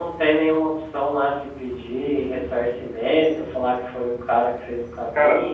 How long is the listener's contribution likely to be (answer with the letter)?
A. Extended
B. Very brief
A